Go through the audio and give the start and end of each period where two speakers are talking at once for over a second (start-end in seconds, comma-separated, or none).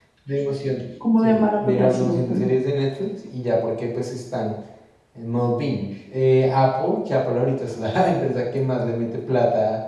1.2-2.5